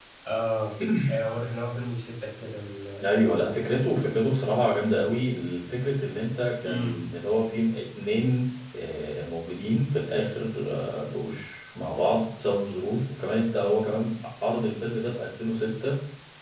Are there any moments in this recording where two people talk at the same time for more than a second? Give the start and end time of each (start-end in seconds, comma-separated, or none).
none